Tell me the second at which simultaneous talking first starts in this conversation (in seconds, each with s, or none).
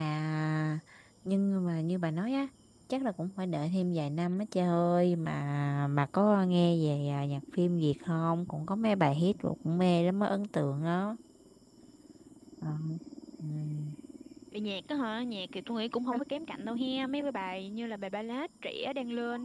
none